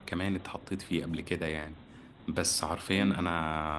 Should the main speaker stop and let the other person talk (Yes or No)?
No